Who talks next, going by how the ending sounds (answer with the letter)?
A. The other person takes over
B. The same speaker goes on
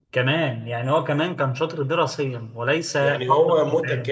A